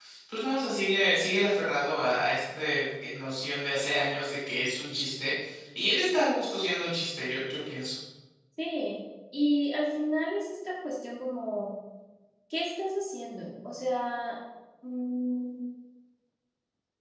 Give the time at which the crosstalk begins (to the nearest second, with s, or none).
none